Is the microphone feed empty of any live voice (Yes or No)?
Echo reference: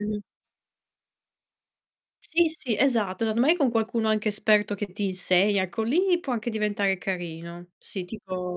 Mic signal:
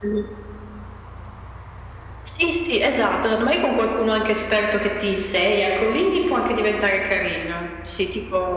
Yes